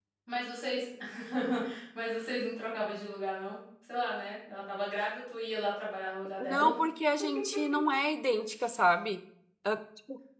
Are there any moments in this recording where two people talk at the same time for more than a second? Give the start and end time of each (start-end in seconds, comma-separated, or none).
none